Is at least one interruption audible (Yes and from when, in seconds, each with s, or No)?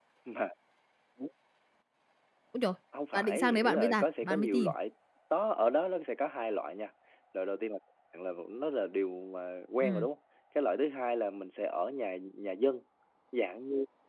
Yes, from 3.1 s